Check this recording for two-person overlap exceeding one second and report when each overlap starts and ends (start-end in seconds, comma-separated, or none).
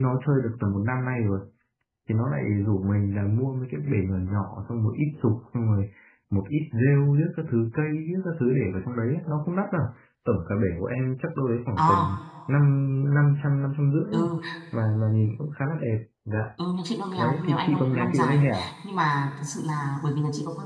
17.2-18.4